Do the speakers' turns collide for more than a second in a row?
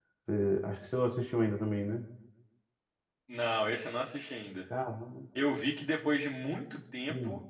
No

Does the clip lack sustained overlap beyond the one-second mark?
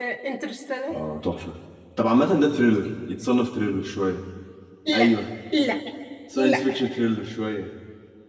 Yes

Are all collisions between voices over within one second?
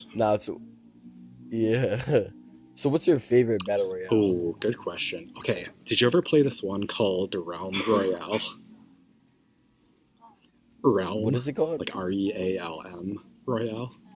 Yes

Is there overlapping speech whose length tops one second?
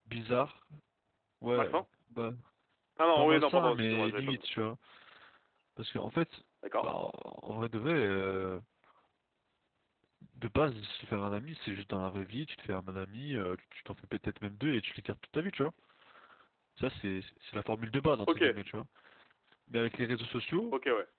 Yes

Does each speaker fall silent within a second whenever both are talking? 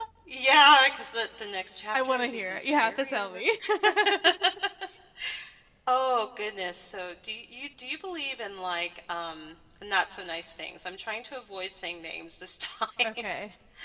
No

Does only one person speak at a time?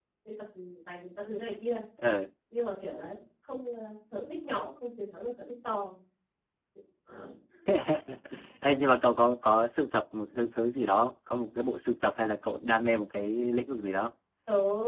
Yes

